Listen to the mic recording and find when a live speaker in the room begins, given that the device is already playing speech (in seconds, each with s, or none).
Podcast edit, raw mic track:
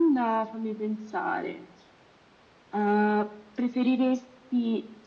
none